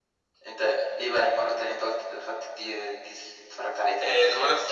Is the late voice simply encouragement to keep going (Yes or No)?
No